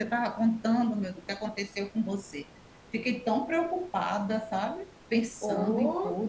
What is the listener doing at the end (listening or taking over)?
taking over